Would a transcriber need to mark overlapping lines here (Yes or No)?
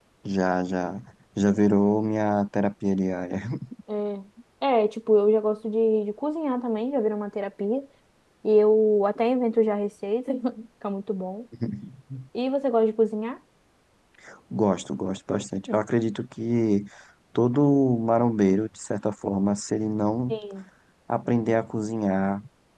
No